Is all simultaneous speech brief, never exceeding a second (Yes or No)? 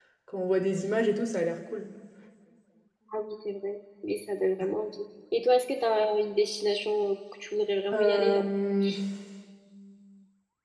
Yes